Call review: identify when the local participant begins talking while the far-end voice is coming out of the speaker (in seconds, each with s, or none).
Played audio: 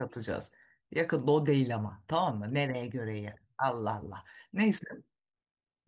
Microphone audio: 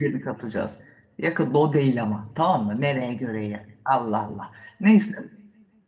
none